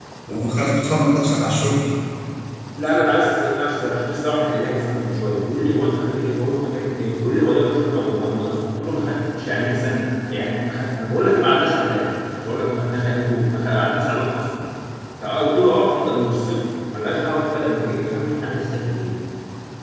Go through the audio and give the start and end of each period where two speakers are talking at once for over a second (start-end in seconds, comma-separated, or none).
none